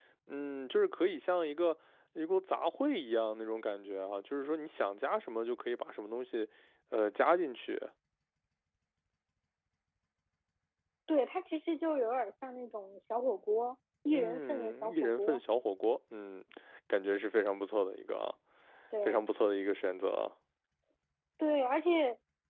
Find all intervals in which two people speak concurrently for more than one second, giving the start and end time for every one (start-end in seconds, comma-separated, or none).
14.1-15.4